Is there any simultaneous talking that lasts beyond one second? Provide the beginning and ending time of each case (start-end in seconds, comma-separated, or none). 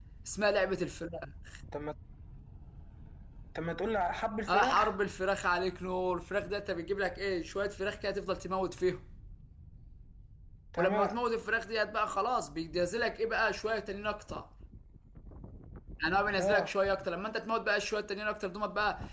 none